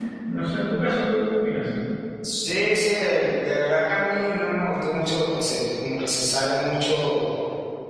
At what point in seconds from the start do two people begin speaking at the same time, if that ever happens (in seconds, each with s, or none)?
none